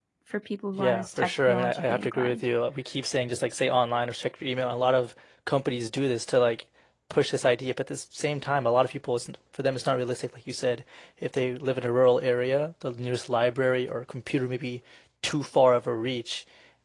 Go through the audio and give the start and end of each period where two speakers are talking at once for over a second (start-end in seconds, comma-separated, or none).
0.8-2.4